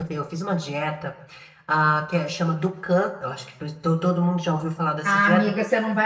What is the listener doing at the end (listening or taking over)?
taking over